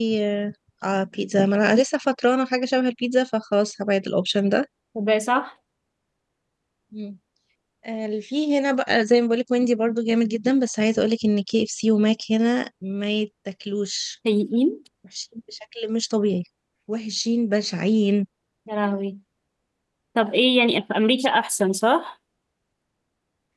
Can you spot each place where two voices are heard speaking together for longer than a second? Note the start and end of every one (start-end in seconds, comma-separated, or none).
none